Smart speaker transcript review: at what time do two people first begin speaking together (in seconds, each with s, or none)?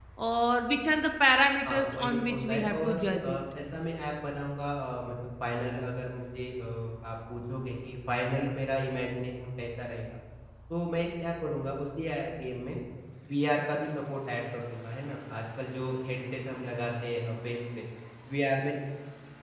1.6 s